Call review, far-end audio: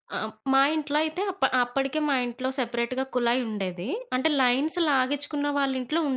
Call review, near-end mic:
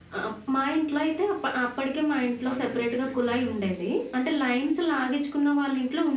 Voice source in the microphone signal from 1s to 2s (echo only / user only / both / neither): echo only